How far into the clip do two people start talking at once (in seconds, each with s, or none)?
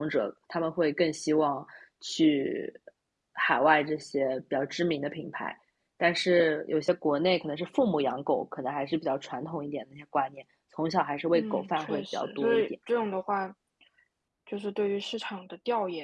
11.3 s